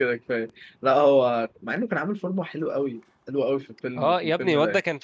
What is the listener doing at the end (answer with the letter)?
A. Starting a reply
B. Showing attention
A